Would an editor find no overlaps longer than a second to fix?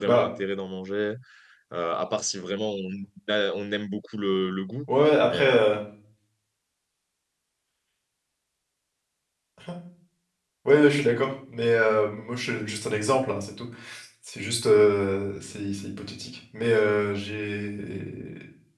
Yes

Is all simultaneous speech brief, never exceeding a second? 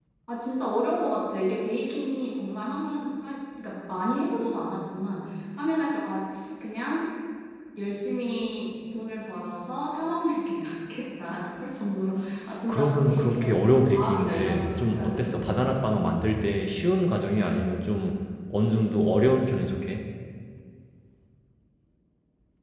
No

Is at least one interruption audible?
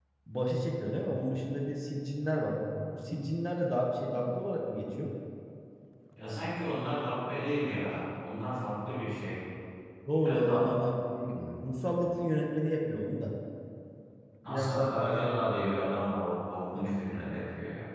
Yes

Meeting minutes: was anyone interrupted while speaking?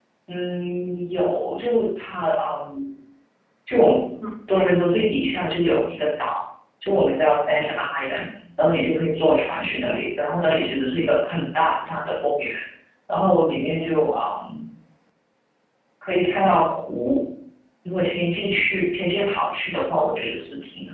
No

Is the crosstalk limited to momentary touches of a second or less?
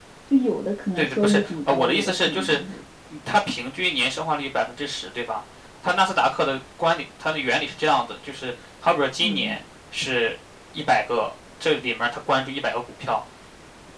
No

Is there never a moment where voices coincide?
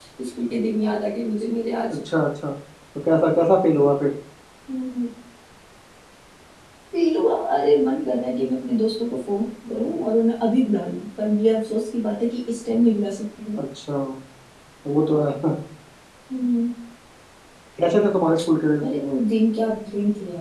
Yes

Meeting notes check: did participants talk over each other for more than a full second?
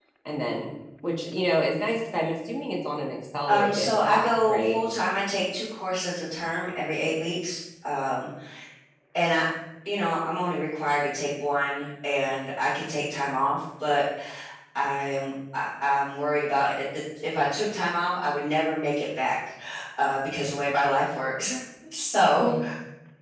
Yes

